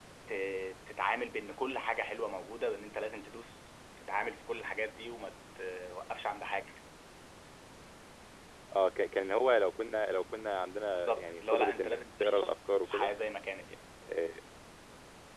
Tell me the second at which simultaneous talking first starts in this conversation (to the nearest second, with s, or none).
11 s